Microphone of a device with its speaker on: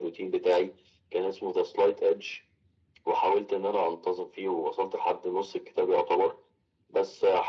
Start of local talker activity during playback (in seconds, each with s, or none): none